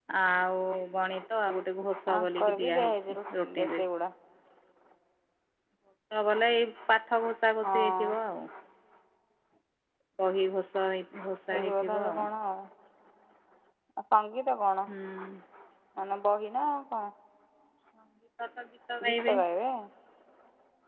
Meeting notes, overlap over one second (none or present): present